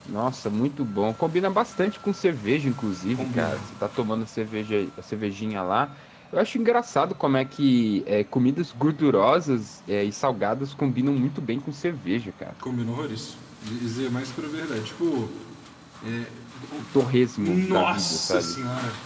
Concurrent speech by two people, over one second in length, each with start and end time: 17.4-18.6

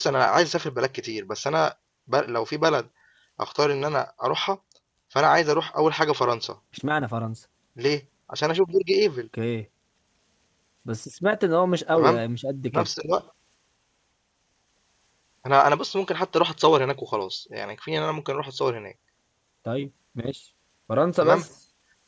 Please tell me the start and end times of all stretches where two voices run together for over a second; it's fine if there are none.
none

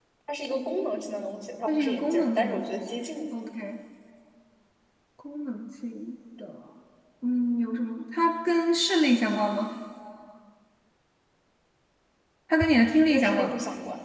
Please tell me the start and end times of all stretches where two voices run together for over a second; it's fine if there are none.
1.7-3.1

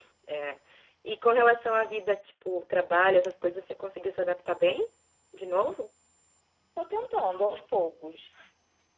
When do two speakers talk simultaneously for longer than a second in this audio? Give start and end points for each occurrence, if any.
none

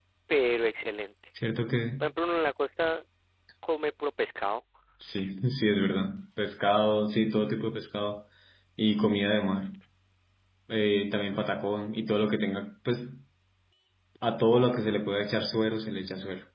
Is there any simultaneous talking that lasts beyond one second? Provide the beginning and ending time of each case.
none

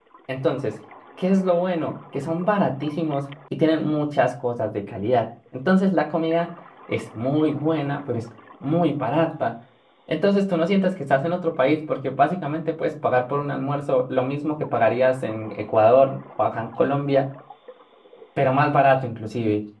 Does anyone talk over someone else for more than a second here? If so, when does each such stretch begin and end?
none

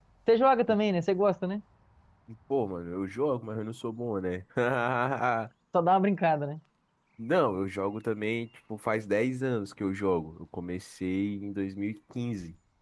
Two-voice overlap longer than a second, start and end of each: none

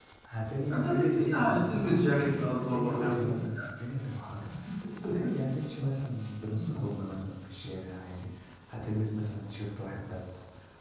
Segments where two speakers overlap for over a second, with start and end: 0.7-3.3

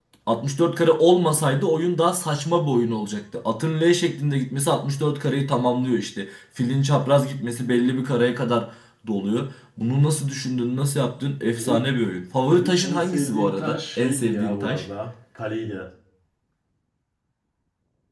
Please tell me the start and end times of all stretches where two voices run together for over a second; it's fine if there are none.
12.5-14.8

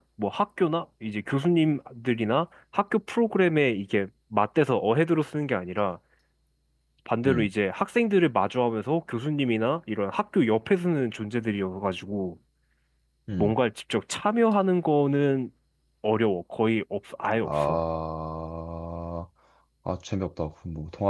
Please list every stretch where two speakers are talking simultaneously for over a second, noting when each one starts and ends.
none

